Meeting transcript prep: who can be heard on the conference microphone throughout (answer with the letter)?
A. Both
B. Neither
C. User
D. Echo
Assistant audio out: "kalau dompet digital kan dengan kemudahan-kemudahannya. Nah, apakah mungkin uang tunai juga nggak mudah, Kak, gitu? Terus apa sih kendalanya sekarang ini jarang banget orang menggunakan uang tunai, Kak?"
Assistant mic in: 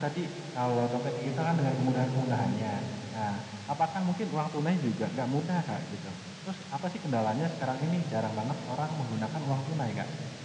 D